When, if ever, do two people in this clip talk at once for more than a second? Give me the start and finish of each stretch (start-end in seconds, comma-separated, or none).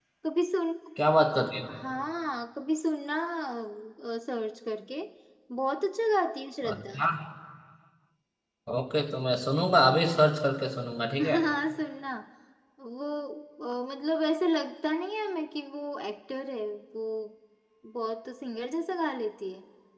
none